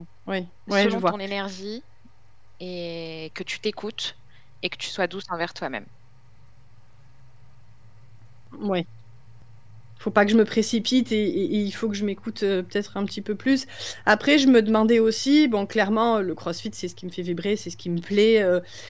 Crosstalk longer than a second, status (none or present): none